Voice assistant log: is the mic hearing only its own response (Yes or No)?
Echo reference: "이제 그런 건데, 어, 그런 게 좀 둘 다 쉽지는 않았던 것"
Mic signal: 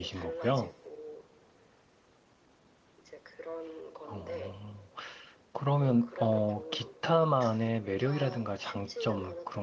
No